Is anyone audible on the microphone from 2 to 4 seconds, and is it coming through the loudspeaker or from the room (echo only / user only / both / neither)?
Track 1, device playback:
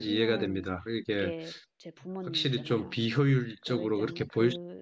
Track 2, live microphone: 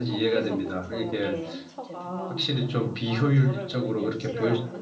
both